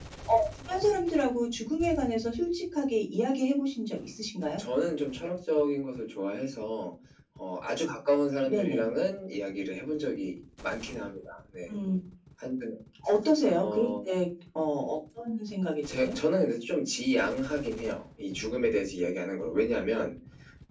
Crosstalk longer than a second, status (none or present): none